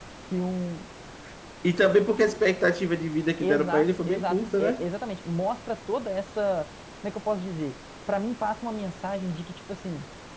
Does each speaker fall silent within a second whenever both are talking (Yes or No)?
No